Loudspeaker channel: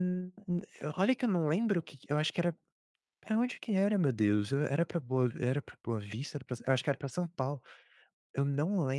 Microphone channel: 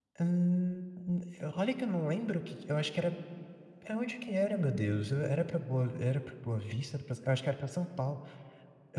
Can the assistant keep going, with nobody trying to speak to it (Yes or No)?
Yes